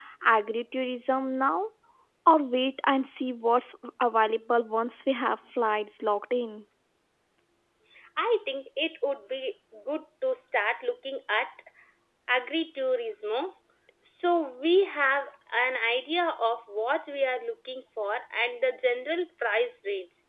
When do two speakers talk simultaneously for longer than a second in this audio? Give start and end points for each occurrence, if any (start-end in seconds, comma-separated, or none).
none